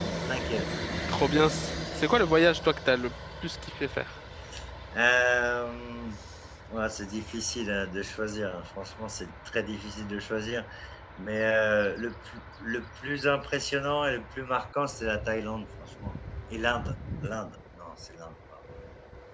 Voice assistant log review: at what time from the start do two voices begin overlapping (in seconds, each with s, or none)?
none